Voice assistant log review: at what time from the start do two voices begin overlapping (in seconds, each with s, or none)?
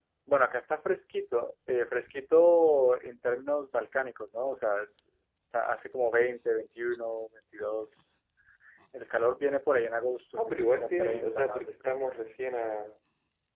10.4 s